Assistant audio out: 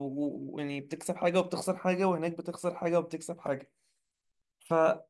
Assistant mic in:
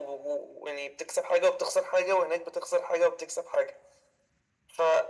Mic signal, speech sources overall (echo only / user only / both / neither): echo only